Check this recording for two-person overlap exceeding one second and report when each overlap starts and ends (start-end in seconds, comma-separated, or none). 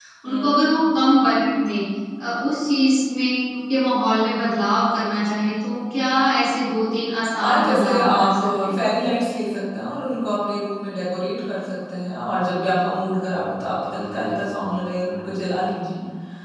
7.4-8.9